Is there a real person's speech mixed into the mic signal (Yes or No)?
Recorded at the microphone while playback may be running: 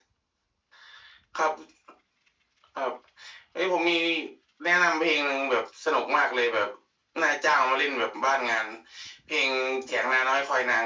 No